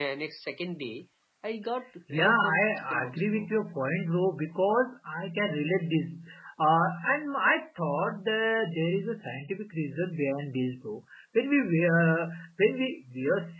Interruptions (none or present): present